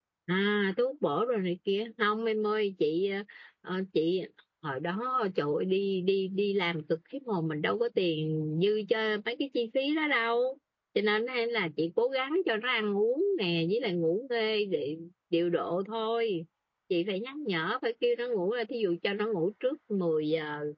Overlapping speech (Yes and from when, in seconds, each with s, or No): No